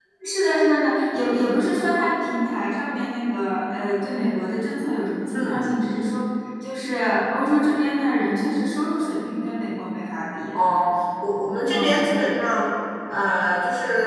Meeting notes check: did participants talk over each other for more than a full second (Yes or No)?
No